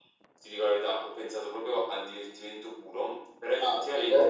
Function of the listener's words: listening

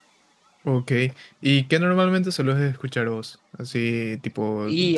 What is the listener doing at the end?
listening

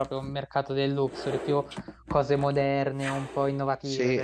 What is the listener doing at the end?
taking over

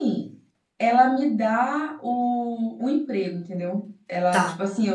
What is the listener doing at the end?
listening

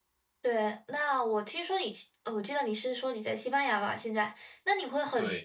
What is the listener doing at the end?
listening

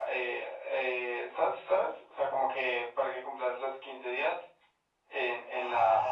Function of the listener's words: taking over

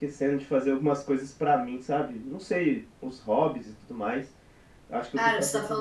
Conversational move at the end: taking over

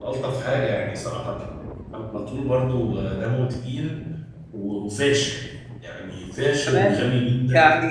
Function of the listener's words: taking over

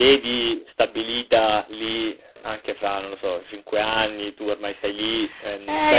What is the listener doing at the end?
taking over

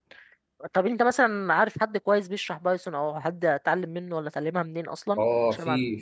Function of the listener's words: taking over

